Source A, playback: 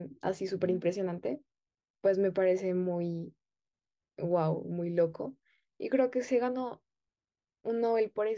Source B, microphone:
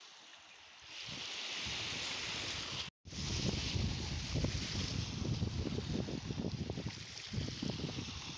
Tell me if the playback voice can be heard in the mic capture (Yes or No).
No